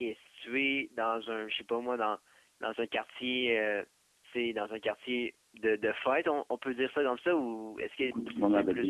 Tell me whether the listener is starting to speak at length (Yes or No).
Yes